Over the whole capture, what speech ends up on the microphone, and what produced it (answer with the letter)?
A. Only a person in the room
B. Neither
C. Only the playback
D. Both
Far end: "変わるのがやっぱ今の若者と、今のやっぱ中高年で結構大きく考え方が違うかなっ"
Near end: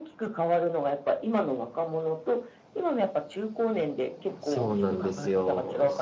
D